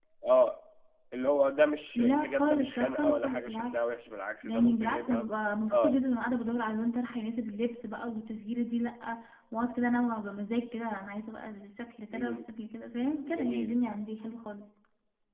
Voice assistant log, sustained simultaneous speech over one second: present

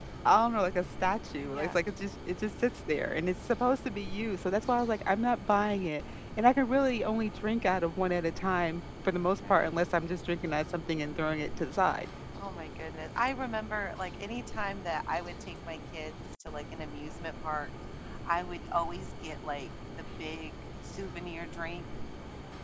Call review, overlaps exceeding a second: none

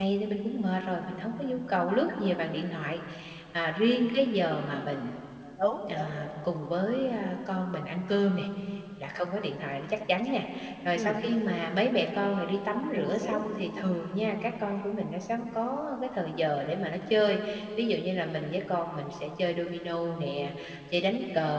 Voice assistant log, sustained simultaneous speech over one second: none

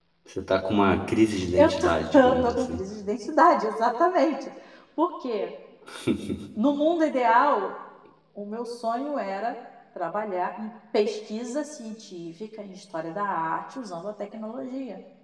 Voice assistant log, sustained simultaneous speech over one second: present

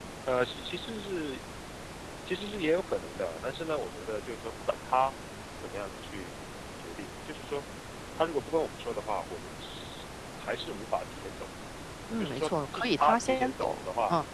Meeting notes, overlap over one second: present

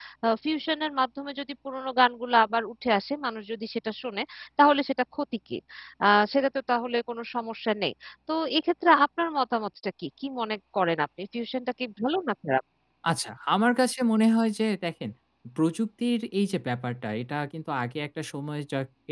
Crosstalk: none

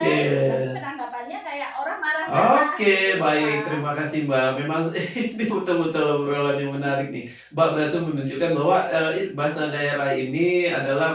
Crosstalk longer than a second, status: present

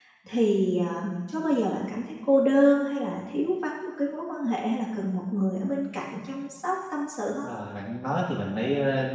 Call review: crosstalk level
none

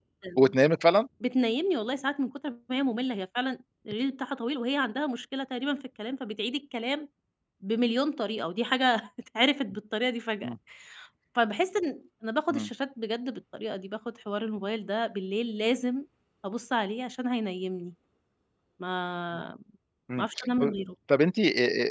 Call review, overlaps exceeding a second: none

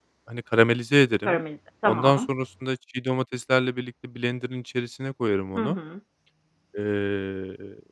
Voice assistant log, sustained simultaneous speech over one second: none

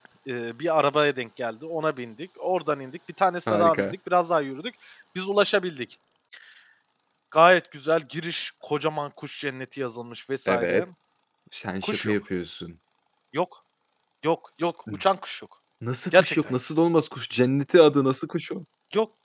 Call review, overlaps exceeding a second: none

